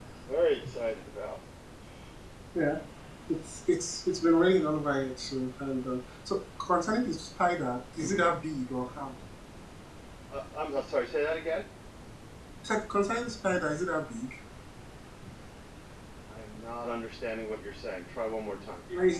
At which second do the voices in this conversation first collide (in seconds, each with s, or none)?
none